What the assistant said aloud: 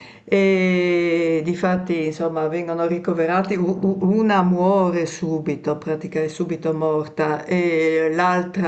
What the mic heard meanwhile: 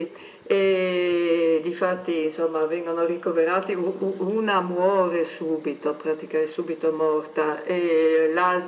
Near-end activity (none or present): none